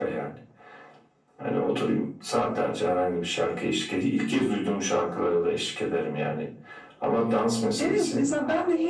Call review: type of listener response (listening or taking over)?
taking over